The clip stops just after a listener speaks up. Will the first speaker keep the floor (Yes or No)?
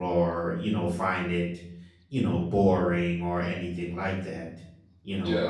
Yes